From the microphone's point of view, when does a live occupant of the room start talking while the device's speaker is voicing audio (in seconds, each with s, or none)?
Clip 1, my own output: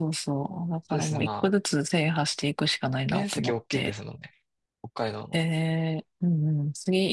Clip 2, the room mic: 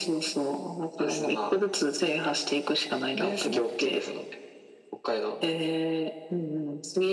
none